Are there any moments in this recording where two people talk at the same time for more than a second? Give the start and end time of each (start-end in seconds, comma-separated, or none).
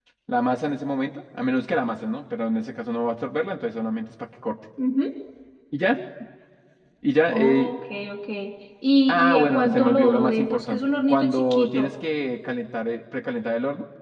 9.1-11.9